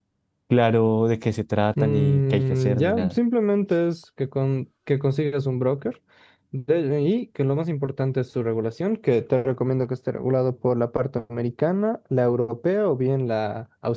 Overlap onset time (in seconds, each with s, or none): 1.8 s